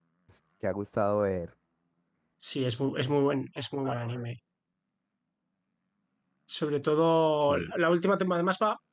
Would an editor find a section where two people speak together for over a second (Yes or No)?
No